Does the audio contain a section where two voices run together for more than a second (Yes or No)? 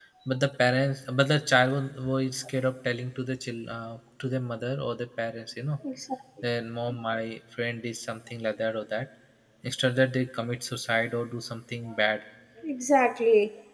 No